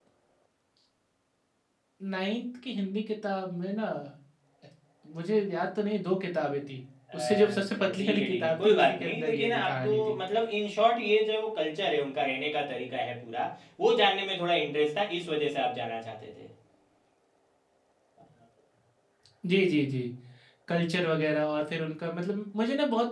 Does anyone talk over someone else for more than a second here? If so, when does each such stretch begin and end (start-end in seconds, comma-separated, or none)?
7.2-10.1